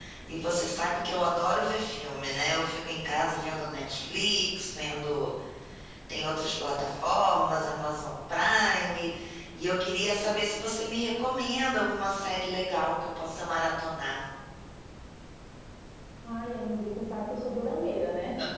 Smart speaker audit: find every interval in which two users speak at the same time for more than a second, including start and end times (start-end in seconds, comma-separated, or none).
none